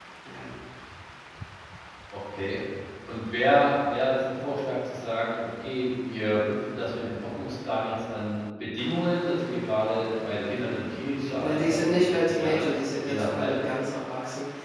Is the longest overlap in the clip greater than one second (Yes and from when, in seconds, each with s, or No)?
Yes, from 11.4 s